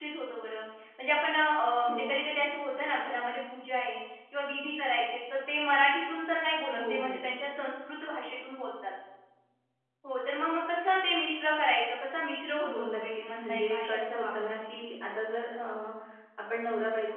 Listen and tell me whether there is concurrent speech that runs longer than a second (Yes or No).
Yes